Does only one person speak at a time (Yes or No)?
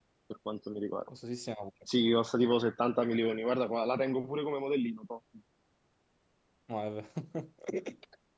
Yes